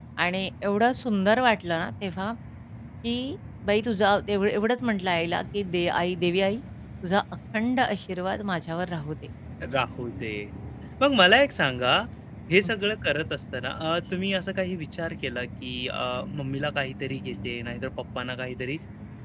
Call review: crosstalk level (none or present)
none